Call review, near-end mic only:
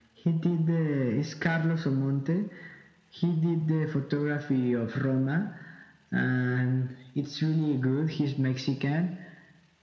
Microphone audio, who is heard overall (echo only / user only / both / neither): echo only